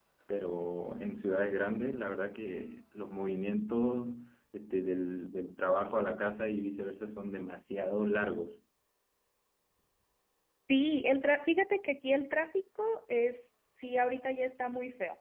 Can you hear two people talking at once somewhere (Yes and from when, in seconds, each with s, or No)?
No